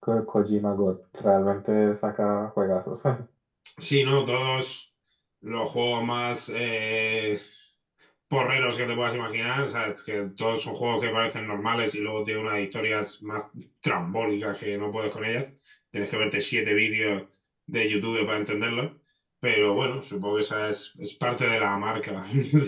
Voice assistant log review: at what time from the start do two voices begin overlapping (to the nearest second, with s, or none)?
none